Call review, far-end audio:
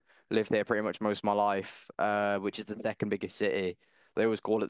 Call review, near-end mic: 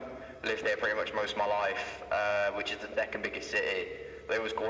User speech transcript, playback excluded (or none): none